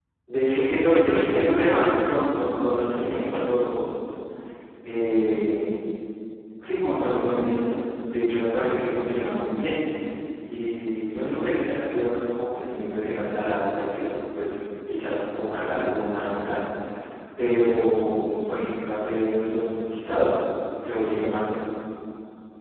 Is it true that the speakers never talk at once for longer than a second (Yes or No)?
No